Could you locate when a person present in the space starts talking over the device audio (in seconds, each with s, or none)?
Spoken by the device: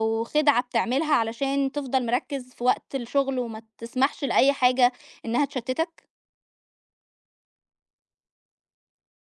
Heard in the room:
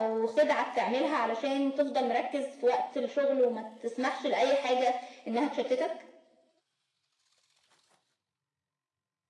none